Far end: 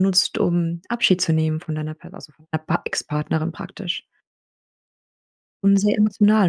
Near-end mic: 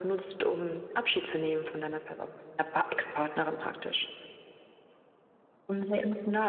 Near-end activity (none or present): none